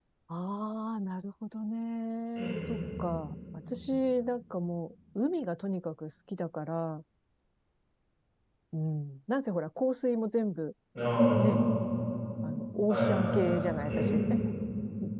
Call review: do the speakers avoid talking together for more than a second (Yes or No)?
No